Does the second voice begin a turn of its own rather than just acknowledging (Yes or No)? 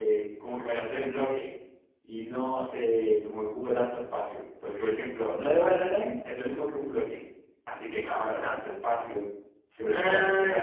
Yes